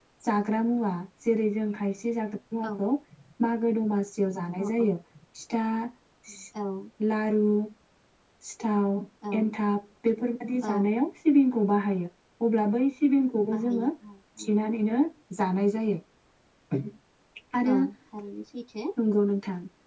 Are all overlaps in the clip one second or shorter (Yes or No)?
Yes